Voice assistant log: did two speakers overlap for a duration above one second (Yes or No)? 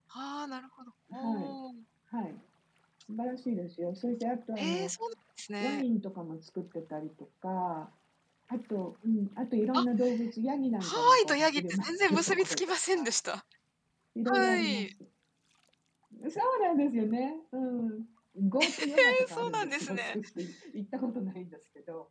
Yes